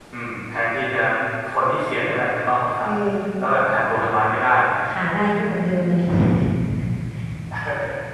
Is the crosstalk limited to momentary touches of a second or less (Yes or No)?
Yes